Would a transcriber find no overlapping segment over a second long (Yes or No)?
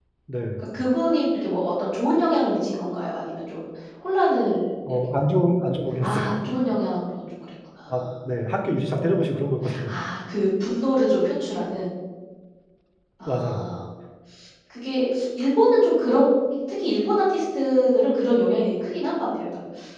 Yes